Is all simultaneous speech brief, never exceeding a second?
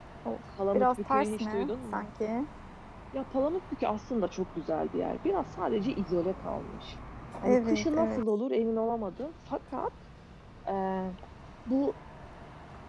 No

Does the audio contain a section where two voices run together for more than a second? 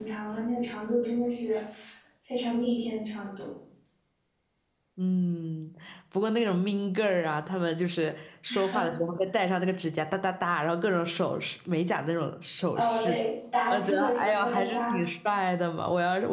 Yes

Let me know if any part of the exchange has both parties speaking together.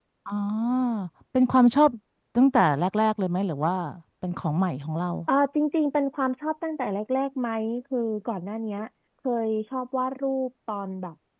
No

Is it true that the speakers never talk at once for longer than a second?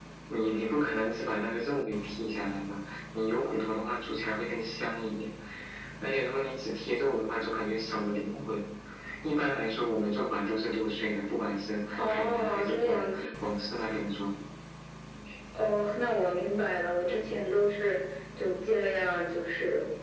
No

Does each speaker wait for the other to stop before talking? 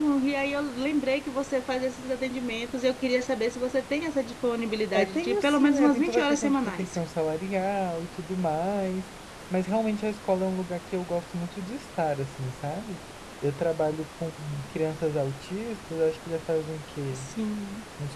No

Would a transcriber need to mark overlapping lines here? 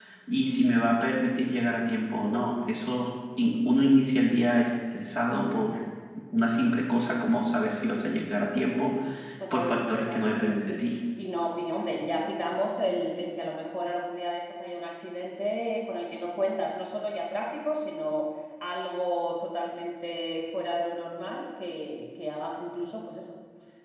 Yes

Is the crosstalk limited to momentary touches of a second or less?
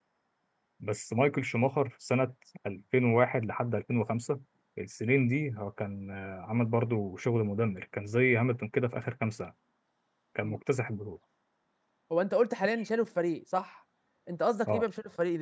Yes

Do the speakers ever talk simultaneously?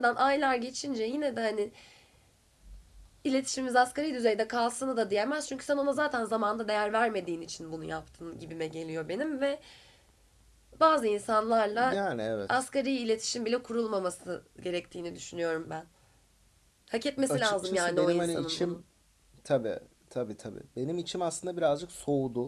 Yes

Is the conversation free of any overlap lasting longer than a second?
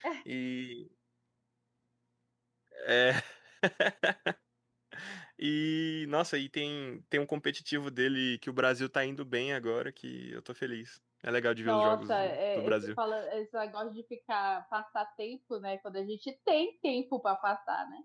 No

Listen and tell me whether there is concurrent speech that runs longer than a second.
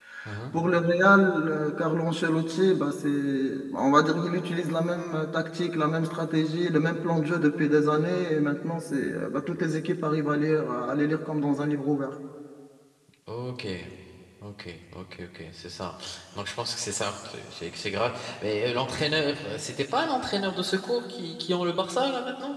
No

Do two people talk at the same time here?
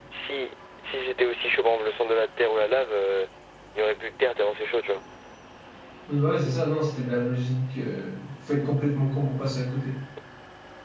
No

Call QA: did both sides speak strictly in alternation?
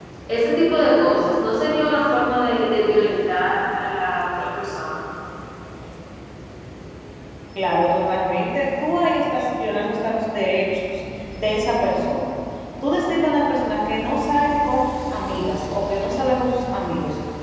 Yes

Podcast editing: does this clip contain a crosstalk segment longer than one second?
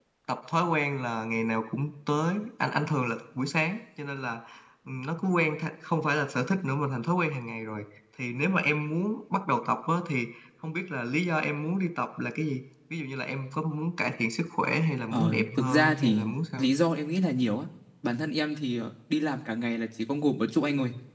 Yes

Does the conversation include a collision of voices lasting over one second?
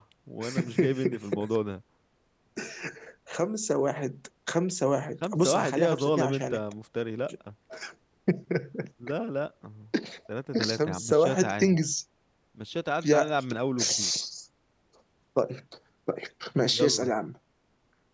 Yes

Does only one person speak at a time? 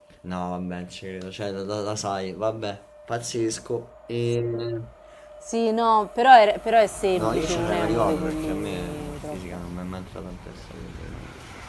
No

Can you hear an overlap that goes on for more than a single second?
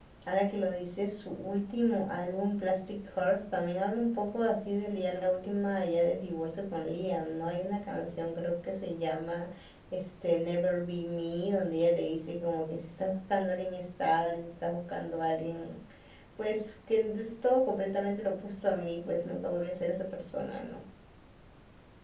No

